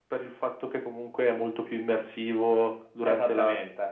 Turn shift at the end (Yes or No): Yes